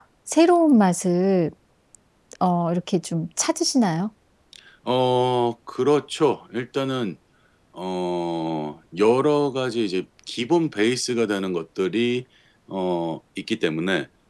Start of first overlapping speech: none

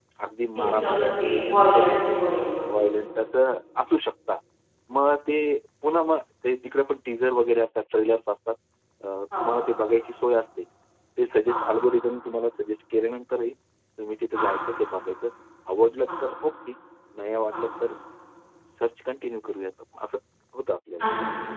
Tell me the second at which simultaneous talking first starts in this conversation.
0.6 s

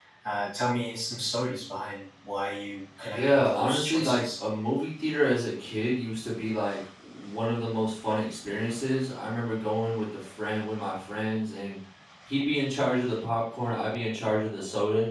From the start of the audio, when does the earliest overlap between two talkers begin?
3.0 s

